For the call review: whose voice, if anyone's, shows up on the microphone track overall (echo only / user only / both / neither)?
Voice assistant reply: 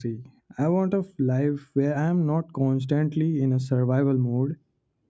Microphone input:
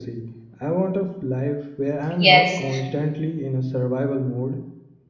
both